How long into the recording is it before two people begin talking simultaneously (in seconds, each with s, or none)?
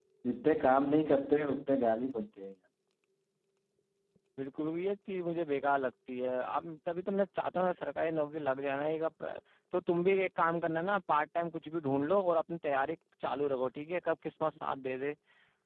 none